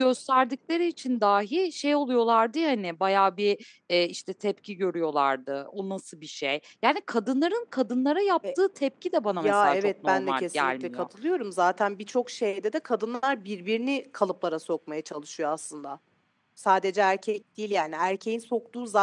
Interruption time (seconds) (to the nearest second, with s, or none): 9 s